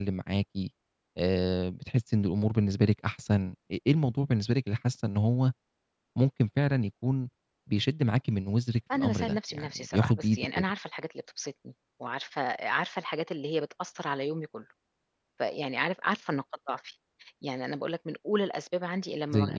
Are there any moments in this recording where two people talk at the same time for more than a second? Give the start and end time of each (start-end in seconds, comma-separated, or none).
9.0-10.7